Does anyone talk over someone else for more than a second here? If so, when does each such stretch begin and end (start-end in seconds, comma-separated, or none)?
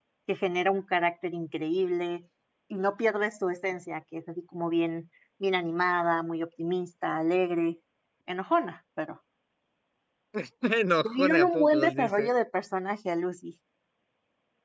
11.0-12.3